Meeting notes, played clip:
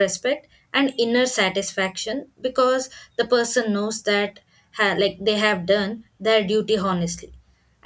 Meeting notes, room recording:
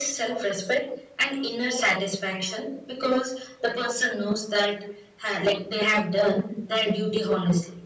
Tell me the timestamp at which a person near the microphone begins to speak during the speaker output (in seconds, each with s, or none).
none